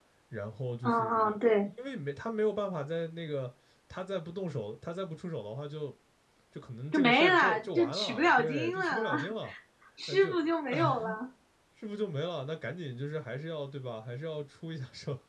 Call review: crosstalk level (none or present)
present